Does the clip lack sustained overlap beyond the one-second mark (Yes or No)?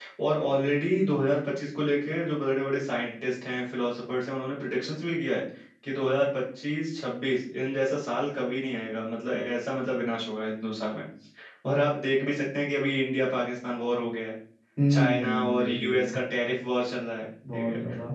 No